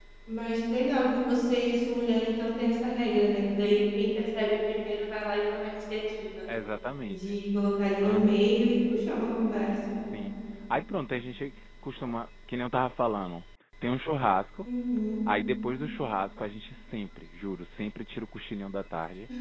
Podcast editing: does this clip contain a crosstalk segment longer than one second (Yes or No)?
No